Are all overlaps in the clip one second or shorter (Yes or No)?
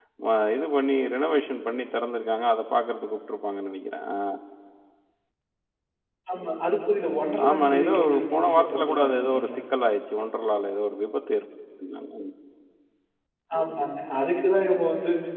No